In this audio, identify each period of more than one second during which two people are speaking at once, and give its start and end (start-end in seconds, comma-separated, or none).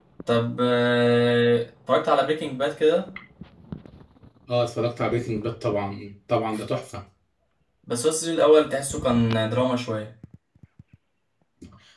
none